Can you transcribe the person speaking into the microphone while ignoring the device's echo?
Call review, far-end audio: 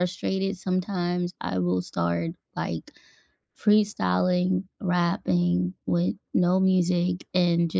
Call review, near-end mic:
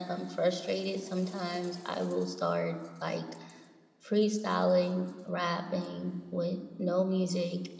none

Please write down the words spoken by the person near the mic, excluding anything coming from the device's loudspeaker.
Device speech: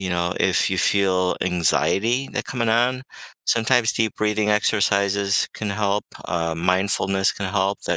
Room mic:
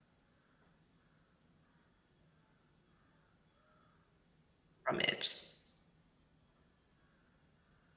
from it.

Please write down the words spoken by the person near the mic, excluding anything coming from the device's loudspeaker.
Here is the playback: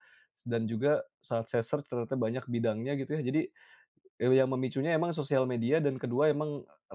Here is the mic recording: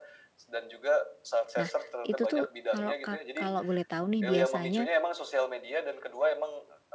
Nah, itu tuh kalau Kak kalau boleh tahu nih biasanya,

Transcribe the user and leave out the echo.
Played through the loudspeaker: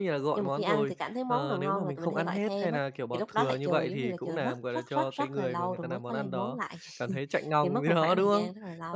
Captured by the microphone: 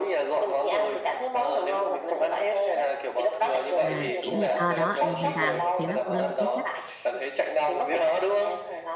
à, kiểu như ờ, đó, là mình vào, thì đó cũng là một cái cách.

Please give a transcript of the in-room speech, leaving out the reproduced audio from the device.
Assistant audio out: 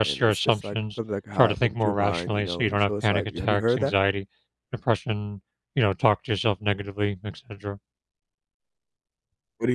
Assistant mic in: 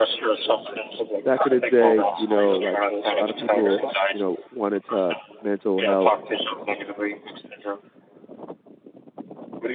back in the day, you know, like a lot of people, you know, wanted to mental health

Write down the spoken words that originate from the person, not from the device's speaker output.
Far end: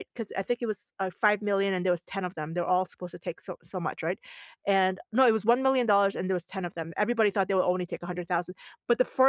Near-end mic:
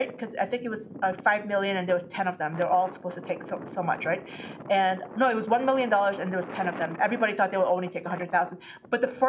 none

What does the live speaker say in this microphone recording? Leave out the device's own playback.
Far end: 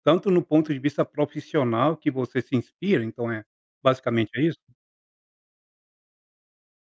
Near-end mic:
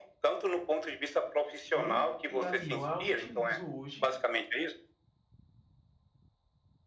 e e a e eu a utilizo hoje,

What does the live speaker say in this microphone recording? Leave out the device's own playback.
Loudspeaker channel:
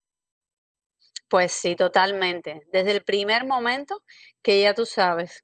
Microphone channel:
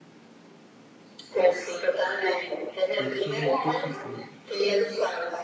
¿Qué qué qué pensamientos?

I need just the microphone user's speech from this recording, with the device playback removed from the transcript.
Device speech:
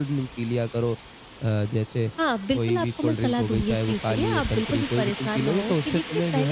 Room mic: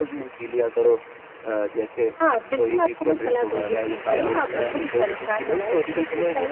और इससे अब जो है

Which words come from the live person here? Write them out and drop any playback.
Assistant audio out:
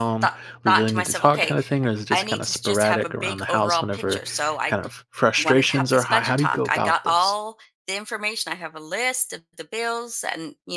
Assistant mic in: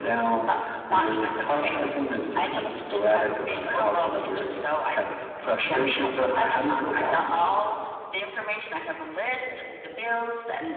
none

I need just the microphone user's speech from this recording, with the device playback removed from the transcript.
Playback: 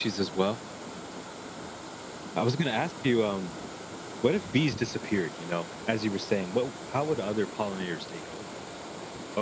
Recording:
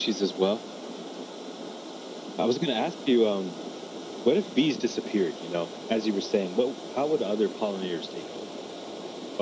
none

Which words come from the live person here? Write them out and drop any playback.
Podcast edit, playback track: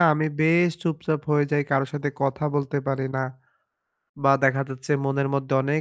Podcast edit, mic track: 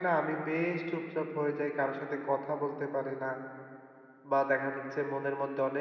none

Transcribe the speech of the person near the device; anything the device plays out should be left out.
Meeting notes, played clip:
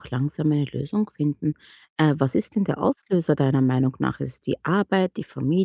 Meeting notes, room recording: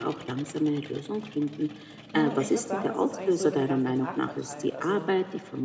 Hm, ich würde sagen, das ist eigentlich so über den ganzen Tag verteilt. Also

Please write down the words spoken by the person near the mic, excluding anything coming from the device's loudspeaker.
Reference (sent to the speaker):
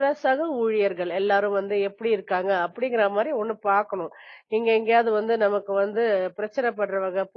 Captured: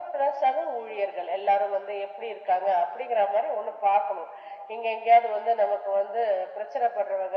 none

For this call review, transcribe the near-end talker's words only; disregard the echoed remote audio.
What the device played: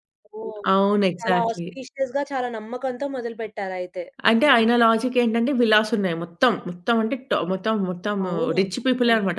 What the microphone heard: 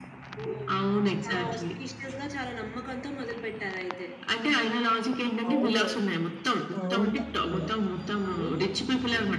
అవునవును. అవును. తప్పకుండా.

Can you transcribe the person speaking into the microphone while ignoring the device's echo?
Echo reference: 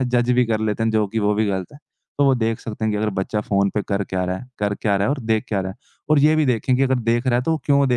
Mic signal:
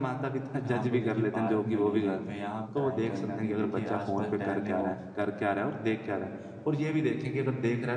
शाम को देखिए पार्क में ले जाएँ, व्यायाम कराएँ, कहीं न कहीं देखिए आस-पास टहलने वो

